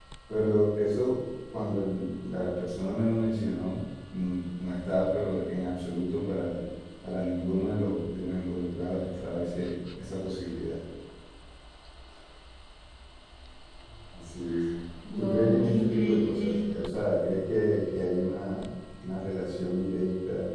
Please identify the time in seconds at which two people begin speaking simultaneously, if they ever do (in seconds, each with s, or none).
15.0 s